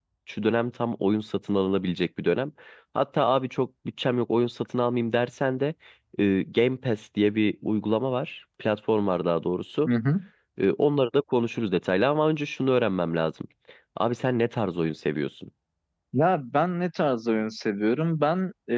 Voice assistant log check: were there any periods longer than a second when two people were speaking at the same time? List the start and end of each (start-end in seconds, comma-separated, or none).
none